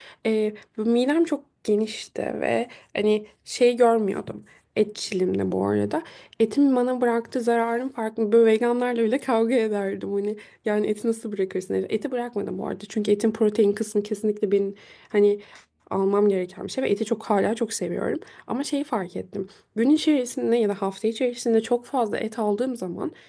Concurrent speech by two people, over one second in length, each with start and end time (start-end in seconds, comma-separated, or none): none